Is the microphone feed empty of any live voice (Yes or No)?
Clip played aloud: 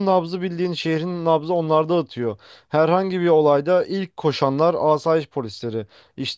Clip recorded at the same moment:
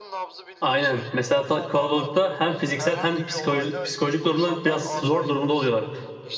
No